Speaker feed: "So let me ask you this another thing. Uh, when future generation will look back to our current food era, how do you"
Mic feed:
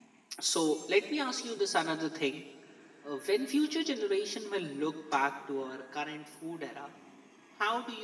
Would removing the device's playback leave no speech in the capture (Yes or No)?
Yes